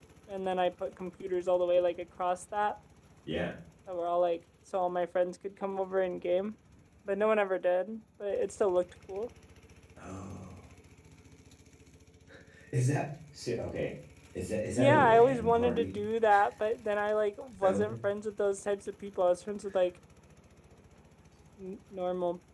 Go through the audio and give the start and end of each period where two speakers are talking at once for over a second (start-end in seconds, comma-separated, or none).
14.6-16.0